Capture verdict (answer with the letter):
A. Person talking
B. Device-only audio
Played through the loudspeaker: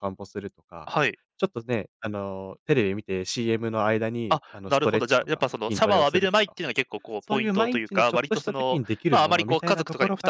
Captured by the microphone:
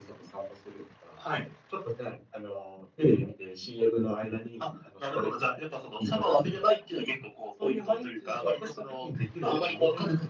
B